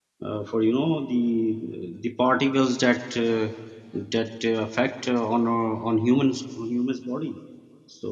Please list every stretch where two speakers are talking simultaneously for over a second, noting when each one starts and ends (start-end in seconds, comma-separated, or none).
none